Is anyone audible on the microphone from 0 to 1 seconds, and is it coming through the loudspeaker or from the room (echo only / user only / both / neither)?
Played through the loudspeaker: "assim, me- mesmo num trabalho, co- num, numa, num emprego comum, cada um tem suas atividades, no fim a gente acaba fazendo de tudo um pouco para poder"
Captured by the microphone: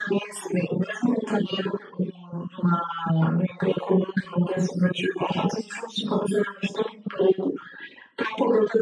echo only